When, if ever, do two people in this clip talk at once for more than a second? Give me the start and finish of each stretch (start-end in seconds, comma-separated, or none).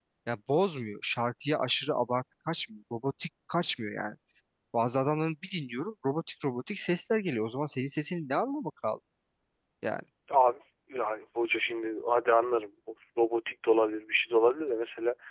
none